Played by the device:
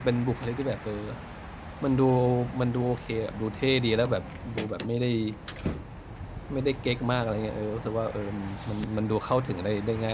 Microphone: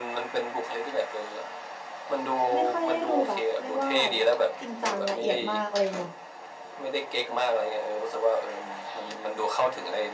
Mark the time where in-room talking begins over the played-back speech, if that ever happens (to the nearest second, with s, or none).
3 s